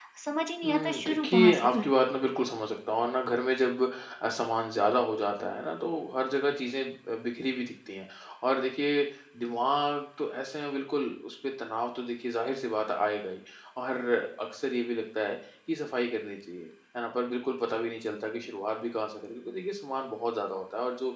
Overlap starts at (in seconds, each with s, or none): 0.7 s